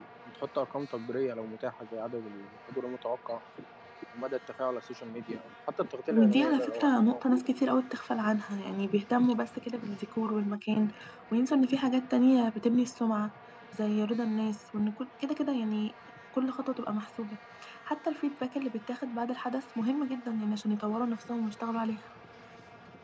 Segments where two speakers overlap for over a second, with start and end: 6.1-7.5

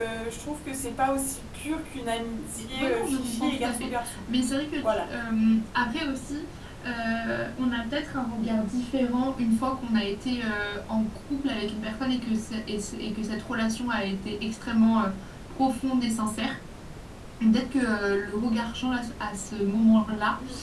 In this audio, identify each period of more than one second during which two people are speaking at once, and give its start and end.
2.6-4.2

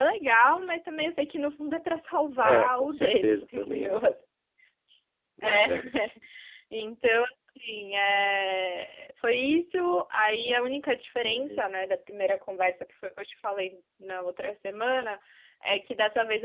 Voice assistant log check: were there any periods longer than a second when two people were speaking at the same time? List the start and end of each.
2.4-4.0

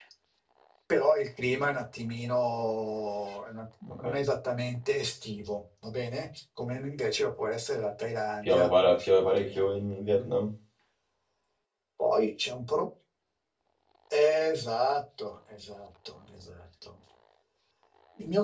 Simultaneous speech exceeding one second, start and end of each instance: 8.4-9.7

